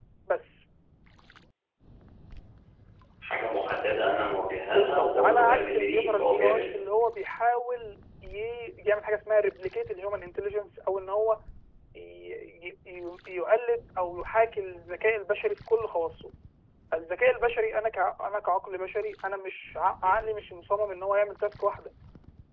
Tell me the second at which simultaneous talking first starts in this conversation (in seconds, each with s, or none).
4.7 s